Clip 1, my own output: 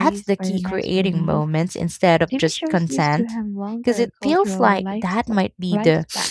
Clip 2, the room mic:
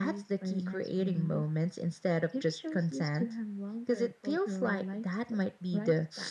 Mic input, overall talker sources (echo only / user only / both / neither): echo only